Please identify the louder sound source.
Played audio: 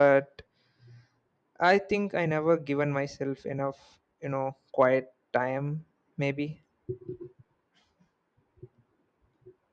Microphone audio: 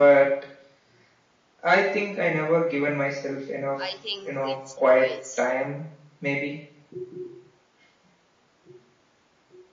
echo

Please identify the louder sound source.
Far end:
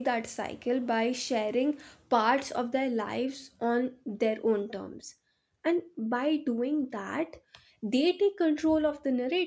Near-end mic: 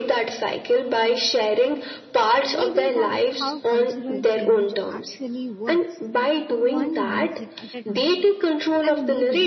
echo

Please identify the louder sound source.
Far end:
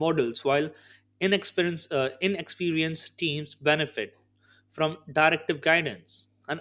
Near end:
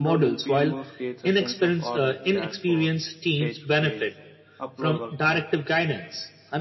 echo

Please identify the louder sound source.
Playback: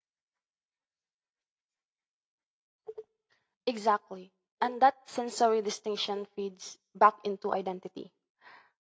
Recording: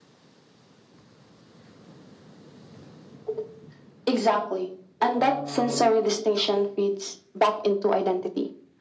echo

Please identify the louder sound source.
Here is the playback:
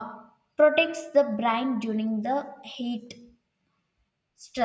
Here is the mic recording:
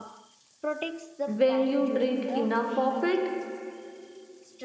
user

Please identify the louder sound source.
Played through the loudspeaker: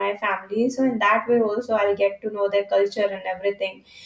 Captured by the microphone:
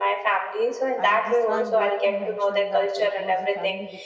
echo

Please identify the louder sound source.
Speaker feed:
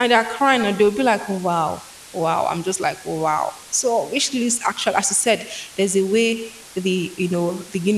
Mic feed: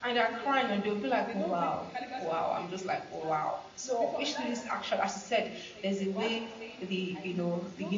echo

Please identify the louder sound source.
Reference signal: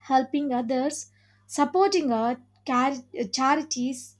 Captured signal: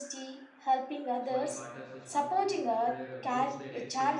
echo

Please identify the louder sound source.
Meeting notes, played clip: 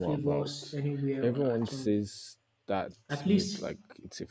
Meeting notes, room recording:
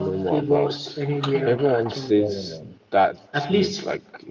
echo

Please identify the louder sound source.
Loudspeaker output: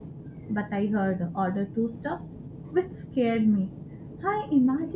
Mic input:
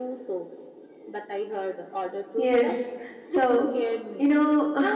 user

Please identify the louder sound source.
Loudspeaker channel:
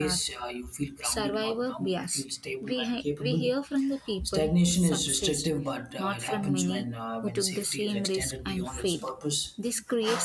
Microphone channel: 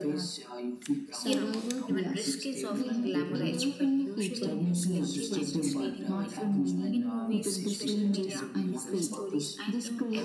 echo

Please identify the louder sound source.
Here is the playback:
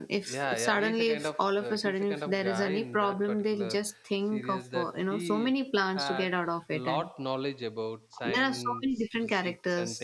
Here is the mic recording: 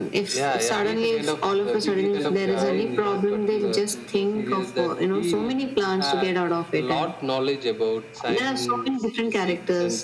echo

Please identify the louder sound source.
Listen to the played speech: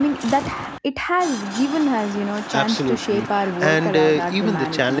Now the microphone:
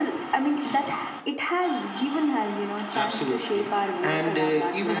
echo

